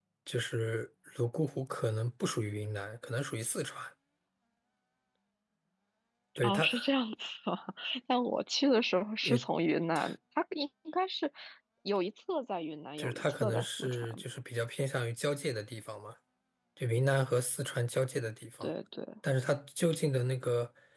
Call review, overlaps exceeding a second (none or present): present